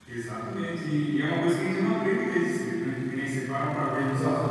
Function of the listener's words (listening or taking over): listening